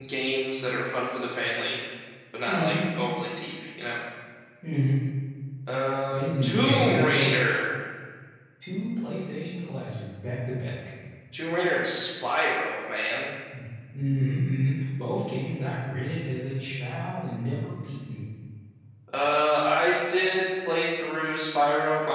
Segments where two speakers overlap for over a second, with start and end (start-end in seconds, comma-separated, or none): 6.1-7.3